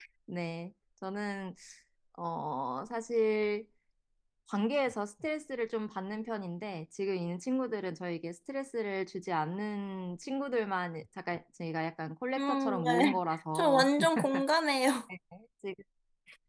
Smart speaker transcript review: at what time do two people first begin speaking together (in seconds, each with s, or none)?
12.4 s